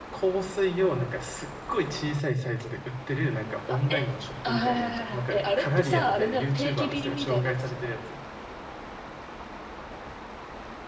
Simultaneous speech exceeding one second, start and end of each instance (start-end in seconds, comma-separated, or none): 4.5-8.1